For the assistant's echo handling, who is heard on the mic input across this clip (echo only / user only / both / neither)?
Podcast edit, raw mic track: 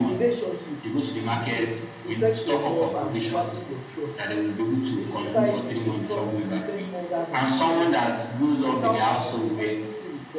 both